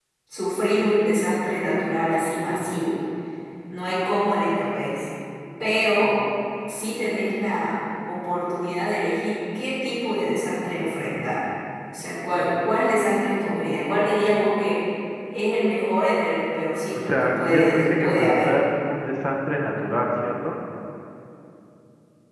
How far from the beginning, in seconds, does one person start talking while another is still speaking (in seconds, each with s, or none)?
16.9 s